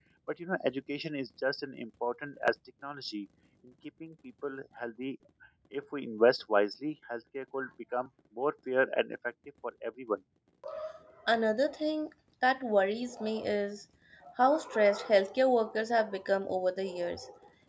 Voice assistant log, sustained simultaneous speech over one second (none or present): none